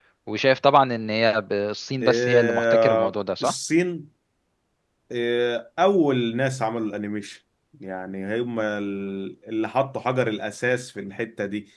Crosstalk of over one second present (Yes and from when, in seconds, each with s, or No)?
Yes, from 2.0 s